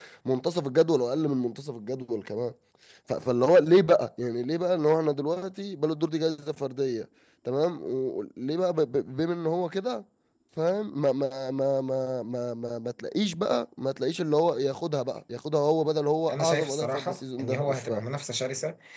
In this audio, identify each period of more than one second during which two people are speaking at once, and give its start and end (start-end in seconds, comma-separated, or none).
16.3-18.0